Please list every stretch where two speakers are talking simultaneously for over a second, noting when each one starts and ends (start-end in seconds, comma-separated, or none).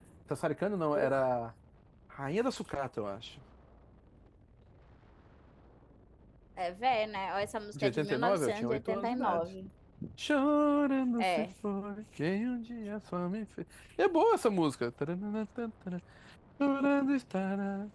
7.7-9.4